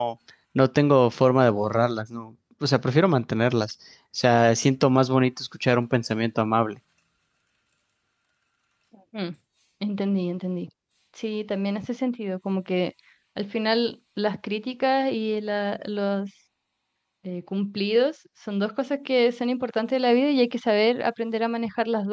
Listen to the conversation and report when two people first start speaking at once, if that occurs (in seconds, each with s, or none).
none